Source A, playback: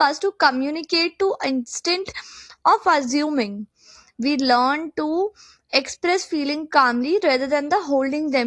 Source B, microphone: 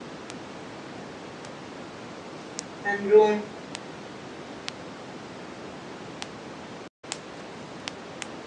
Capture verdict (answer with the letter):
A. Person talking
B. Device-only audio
A